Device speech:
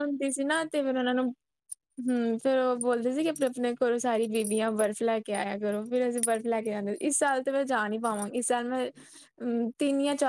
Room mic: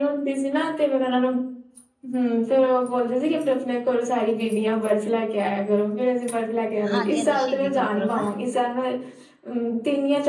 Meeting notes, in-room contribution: present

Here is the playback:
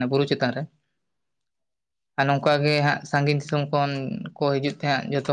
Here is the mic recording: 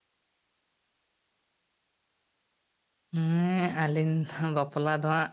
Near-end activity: present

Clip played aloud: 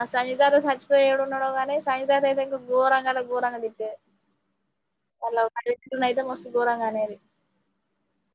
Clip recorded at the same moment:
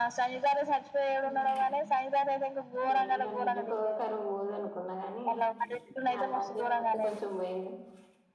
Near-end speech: present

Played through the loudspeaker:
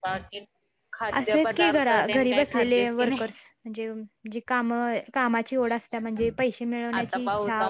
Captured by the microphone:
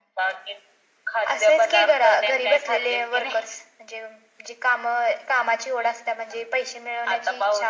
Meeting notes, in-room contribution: none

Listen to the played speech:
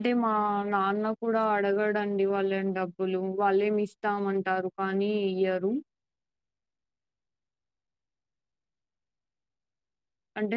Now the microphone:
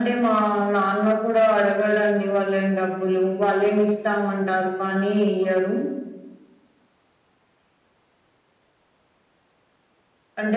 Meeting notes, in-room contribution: none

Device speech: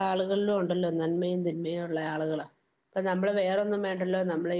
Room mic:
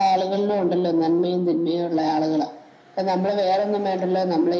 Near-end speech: none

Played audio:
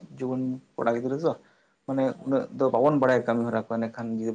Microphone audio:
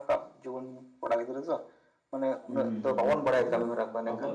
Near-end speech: present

